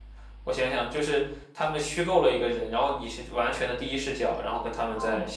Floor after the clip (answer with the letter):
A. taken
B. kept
A